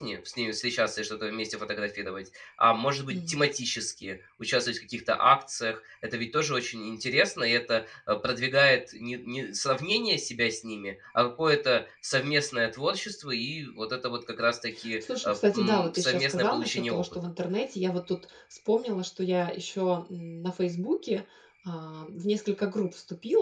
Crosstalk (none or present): present